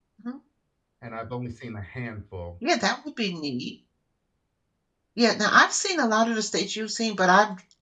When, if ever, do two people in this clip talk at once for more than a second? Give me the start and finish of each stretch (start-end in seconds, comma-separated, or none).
none